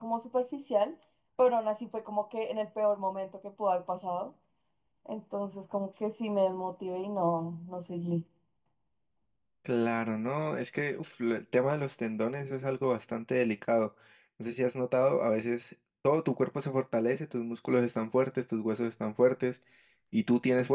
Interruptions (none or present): none